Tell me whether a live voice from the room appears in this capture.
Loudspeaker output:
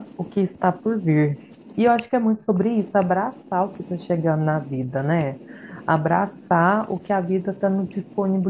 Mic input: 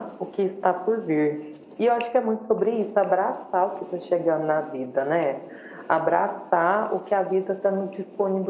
No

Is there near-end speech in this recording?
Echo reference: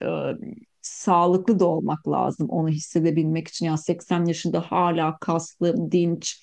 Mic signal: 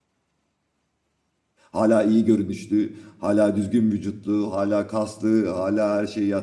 Yes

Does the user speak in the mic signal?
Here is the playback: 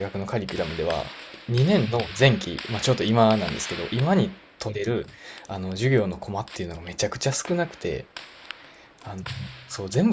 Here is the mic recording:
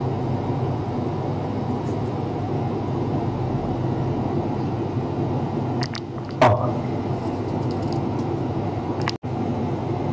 Yes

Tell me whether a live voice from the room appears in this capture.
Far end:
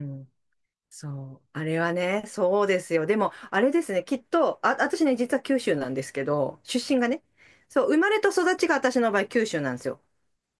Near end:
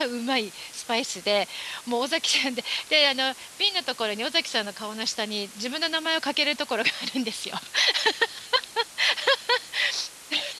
Yes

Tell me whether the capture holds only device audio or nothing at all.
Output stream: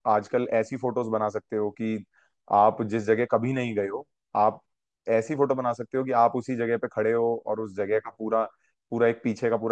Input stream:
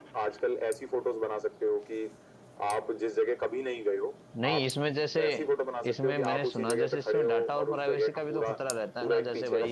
No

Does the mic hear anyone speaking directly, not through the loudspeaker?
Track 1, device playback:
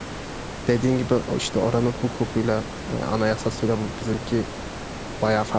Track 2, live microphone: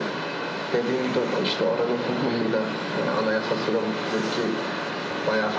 Yes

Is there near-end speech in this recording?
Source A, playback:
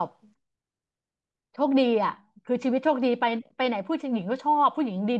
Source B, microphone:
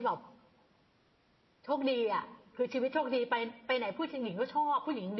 No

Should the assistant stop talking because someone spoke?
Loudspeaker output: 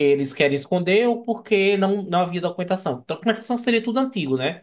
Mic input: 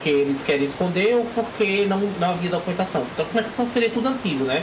No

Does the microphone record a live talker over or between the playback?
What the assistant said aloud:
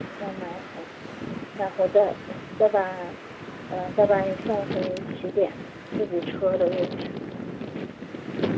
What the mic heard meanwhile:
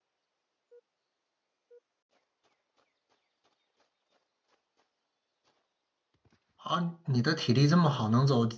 Yes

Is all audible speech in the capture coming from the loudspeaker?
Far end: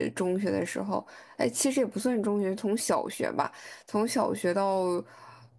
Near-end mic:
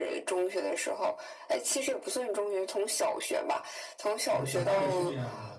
No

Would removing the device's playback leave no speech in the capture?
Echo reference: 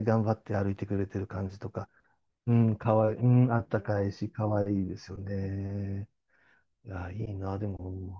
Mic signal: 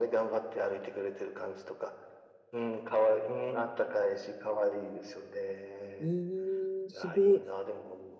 No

